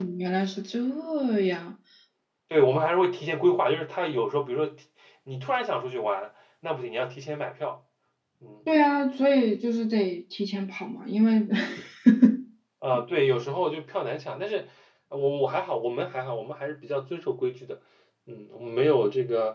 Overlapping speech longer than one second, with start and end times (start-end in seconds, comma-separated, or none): none